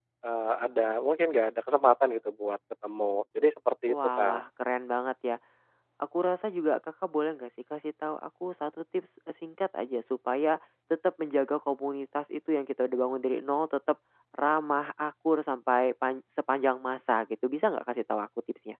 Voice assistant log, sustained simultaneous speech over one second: none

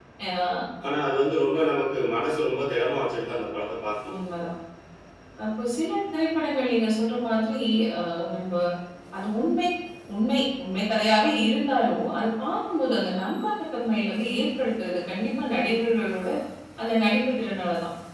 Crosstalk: none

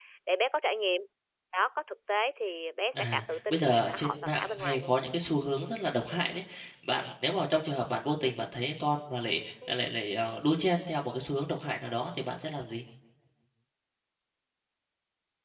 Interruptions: present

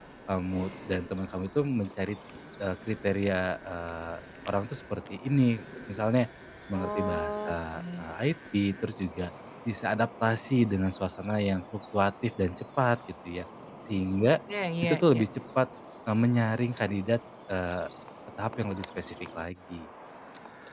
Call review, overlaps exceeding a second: present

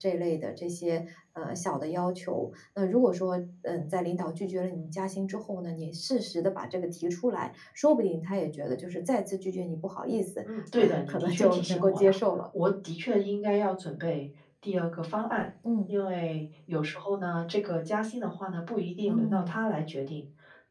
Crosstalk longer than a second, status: present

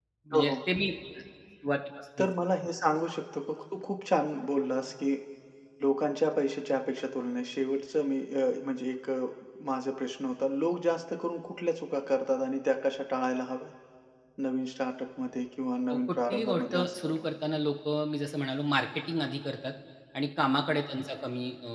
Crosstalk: present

